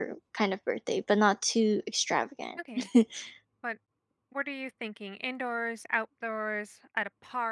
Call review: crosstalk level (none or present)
none